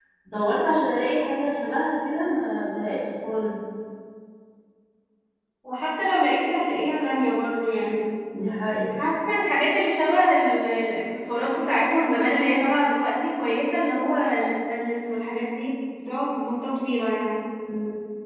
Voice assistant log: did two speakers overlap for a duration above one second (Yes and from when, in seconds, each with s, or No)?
No